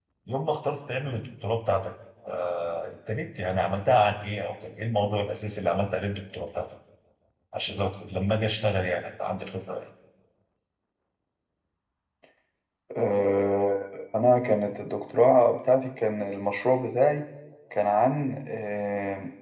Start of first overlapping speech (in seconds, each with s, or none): none